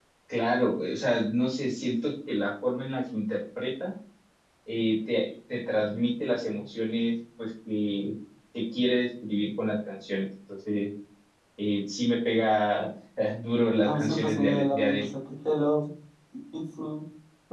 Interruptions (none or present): present